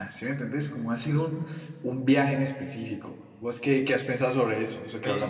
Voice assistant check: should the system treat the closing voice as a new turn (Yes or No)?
Yes